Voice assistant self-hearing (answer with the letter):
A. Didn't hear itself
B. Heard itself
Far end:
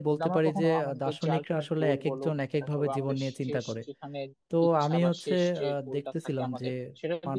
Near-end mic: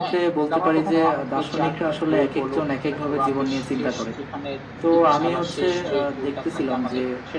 B